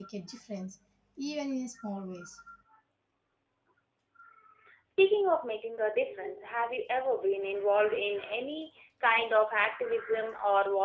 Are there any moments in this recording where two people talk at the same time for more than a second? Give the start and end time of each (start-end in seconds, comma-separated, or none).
none